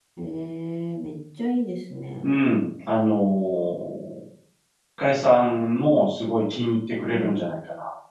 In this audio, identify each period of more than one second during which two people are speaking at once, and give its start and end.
none

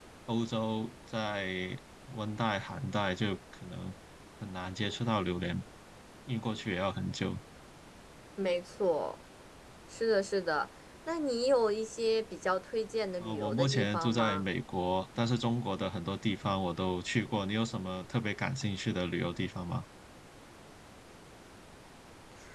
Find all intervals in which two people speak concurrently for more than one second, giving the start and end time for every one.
13.2-14.4

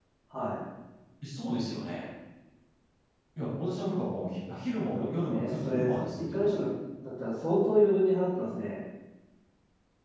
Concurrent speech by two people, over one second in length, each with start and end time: 5.3-6.6

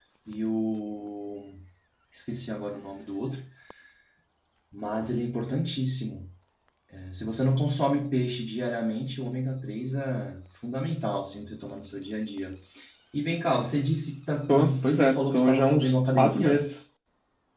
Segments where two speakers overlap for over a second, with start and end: 14.5-16.7

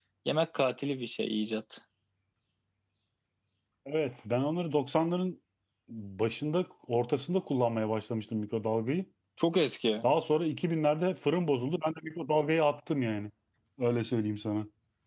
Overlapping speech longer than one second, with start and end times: none

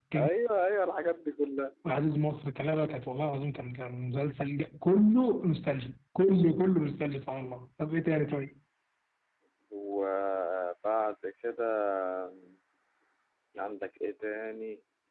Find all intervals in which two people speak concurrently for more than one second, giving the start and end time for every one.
none

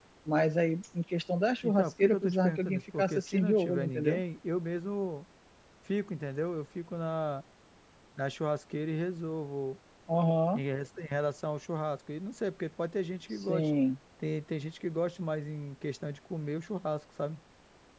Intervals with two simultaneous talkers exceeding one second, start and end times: 1.6-4.2

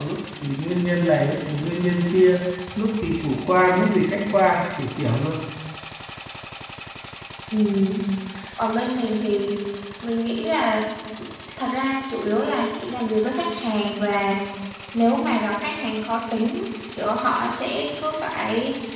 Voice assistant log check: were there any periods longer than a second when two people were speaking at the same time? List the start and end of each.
none

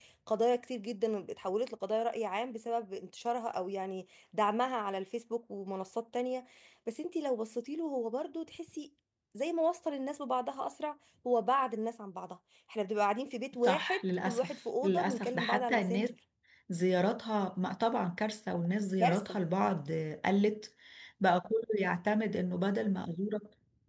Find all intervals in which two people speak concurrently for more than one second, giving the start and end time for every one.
13.6-16.1

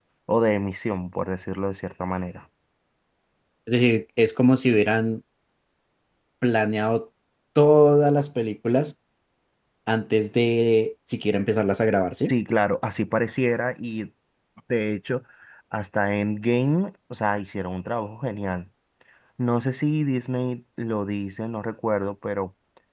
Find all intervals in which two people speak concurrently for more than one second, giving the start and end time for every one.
none

